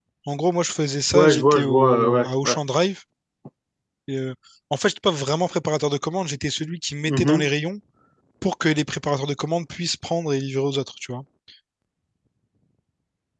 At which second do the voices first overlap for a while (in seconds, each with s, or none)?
1.1 s